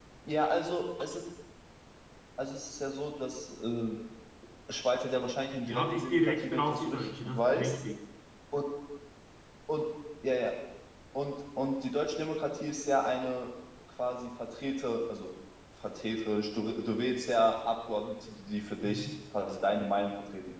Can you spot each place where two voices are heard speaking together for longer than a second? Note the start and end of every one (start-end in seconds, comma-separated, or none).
5.7-7.7